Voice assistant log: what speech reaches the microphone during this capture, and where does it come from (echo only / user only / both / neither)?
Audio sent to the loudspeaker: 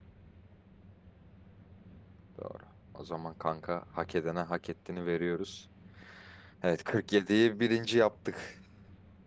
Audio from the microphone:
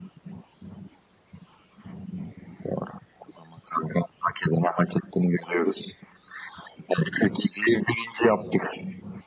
echo only